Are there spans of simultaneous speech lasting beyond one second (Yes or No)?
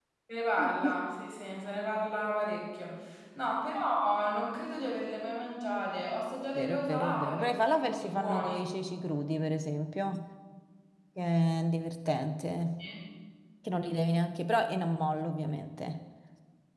Yes